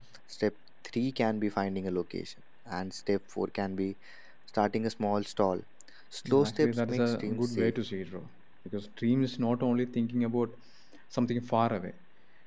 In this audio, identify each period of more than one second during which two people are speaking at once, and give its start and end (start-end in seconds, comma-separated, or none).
6.2-7.7